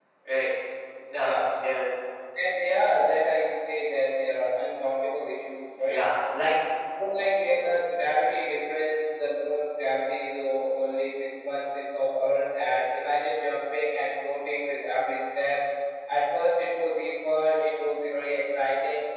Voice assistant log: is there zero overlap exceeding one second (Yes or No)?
Yes